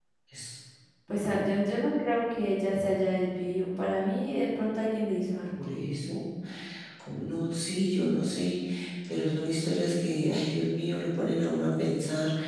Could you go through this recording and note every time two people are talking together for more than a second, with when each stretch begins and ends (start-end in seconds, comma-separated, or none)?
none